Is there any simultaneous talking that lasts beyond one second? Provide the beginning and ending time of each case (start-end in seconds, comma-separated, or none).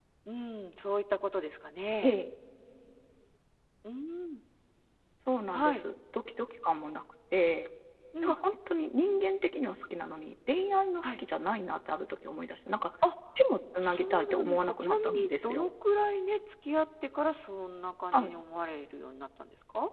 13.8-15.7